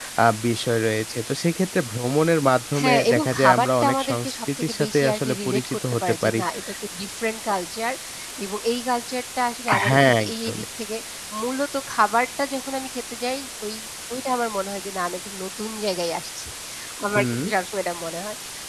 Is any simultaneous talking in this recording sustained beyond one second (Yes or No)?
Yes